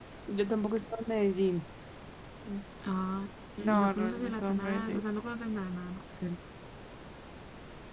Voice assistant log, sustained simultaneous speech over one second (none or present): present